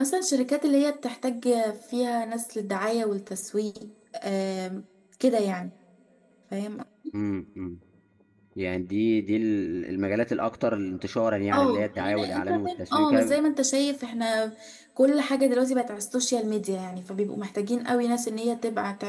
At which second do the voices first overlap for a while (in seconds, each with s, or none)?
11.5 s